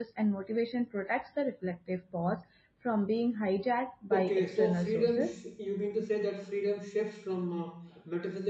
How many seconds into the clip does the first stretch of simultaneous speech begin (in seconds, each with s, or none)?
4.1 s